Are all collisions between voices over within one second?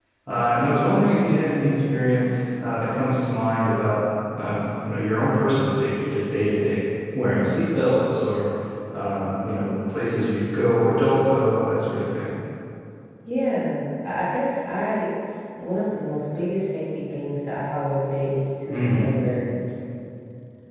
Yes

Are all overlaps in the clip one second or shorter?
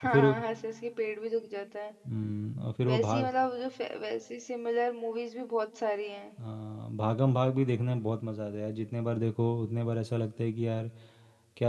Yes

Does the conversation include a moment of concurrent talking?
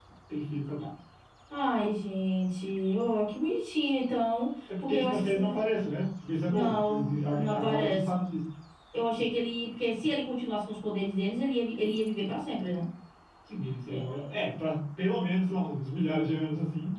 Yes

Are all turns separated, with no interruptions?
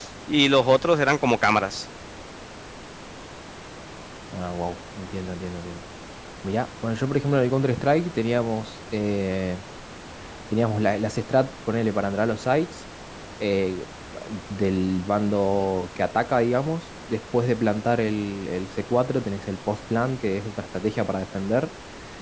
Yes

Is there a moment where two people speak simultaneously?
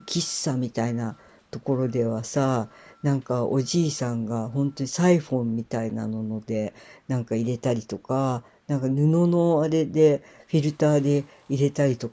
No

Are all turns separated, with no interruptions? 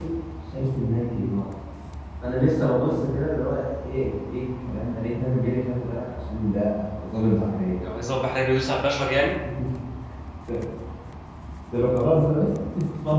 Yes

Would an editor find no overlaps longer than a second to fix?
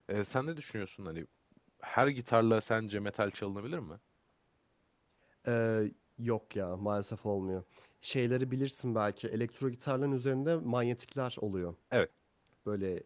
Yes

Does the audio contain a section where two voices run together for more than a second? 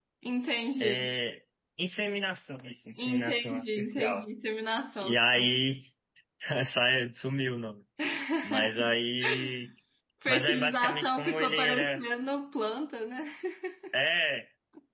Yes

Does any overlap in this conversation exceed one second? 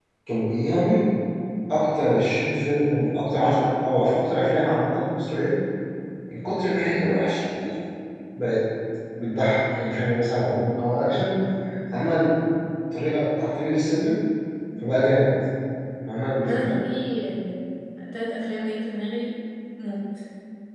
No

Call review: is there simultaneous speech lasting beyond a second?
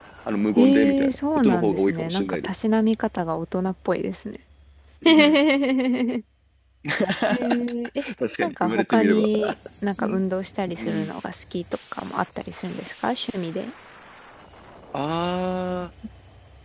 Yes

